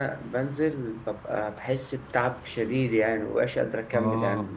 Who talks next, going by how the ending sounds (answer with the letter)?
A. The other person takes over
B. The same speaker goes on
A